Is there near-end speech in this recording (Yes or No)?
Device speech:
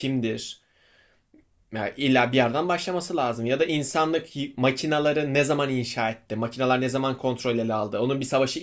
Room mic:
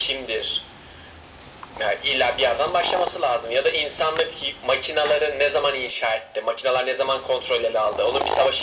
No